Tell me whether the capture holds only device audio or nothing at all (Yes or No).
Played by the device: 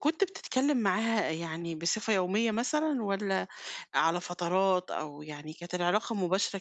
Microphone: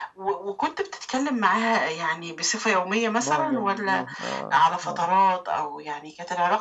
No